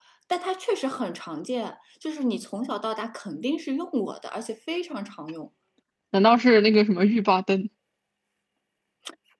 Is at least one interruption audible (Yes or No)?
No